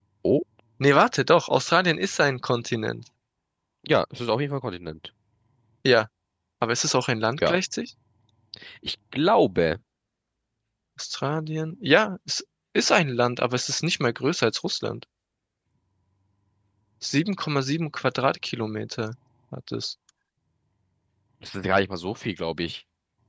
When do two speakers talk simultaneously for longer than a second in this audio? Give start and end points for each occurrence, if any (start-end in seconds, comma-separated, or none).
none